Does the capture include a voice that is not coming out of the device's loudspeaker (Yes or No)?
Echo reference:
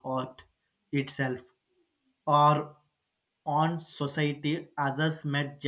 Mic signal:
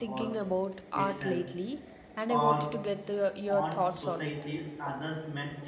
Yes